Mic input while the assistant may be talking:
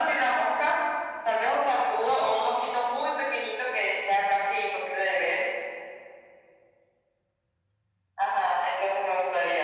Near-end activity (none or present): none